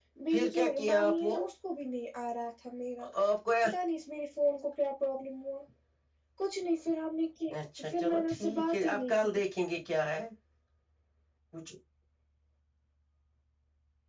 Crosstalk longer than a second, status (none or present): present